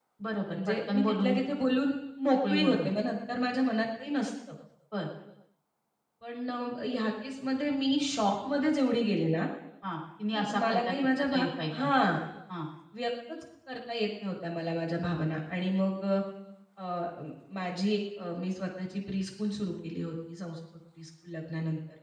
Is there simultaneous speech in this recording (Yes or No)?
Yes